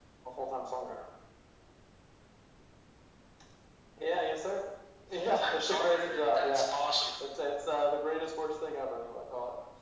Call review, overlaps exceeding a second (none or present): present